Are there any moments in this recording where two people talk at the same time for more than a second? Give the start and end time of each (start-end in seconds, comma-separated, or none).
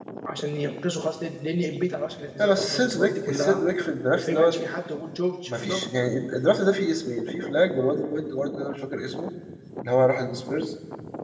2.4-3.7